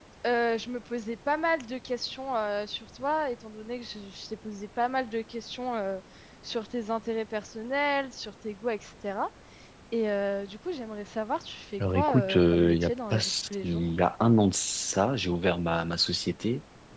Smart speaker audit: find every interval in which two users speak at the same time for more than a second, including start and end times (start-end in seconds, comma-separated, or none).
11.9-13.8